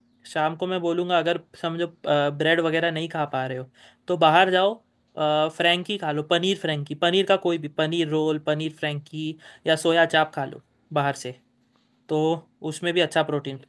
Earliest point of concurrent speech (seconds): none

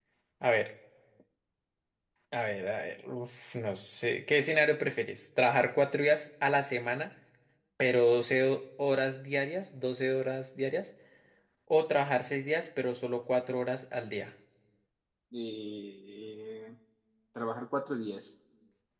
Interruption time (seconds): none

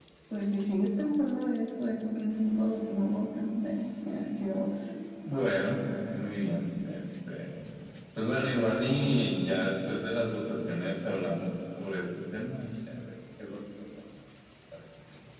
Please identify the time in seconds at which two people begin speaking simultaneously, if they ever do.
none

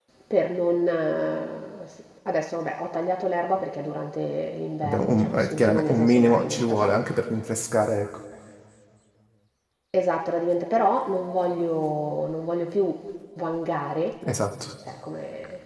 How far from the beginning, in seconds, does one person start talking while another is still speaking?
4.8 s

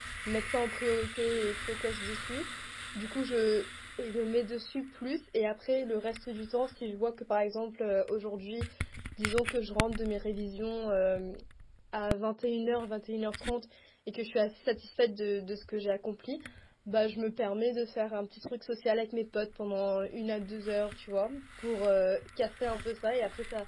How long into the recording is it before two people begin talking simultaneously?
none

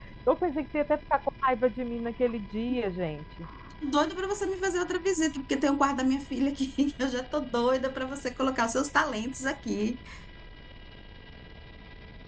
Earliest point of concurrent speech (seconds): none

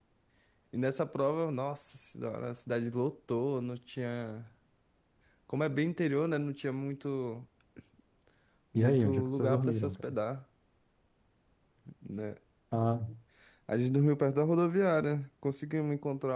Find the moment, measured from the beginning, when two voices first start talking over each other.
8.8 s

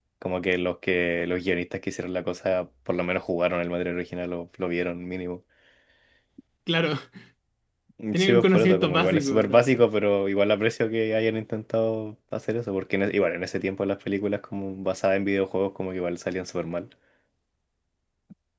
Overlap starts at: 8.1 s

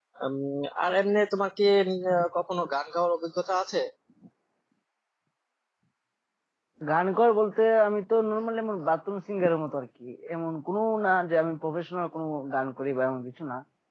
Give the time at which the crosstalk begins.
none

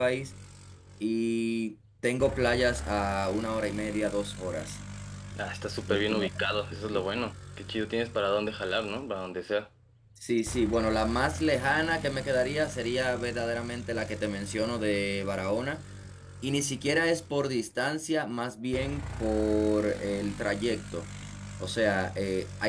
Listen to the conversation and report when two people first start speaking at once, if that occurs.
5.9 s

